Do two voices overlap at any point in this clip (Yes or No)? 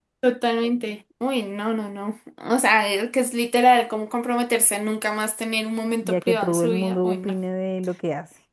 Yes